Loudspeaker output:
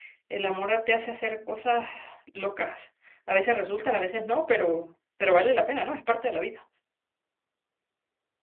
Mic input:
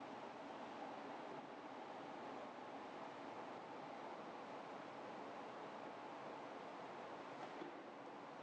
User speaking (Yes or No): No